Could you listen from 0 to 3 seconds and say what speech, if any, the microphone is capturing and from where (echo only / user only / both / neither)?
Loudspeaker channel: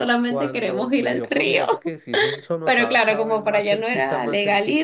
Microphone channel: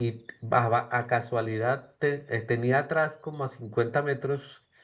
user only